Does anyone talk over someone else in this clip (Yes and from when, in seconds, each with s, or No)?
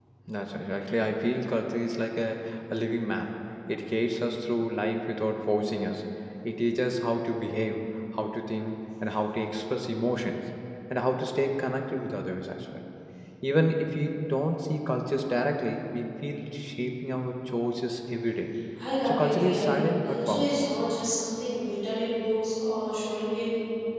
Yes, from 19.0 s